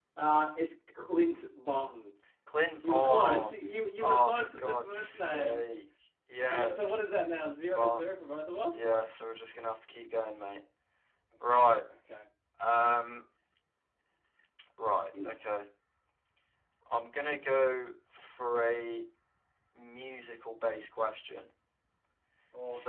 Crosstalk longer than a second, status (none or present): present